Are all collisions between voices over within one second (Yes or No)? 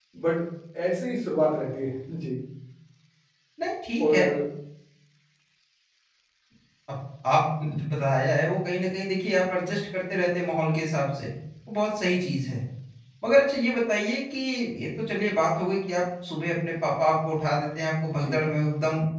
Yes